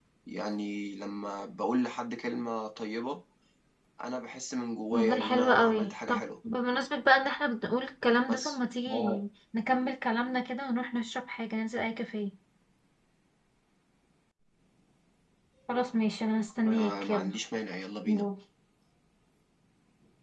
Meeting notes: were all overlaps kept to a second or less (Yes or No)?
No